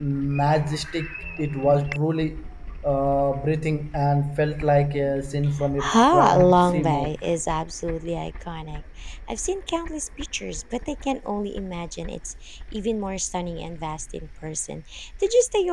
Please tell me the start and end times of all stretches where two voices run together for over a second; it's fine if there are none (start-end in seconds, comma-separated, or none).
5.8-7.1